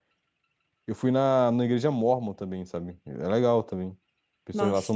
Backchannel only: No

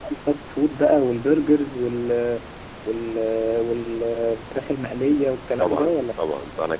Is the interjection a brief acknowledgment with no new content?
No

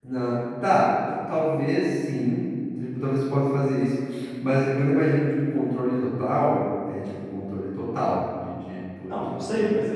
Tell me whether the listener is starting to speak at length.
Yes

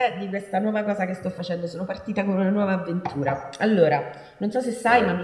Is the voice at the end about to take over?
No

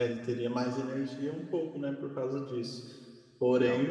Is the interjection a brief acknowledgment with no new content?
Yes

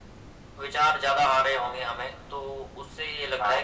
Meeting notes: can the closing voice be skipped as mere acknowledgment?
Yes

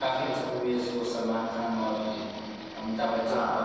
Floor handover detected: Yes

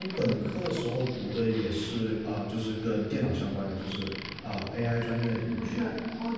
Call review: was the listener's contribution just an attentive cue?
No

